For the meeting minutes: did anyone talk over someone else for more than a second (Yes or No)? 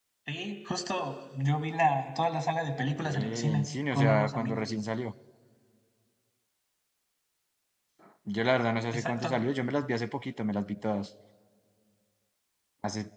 Yes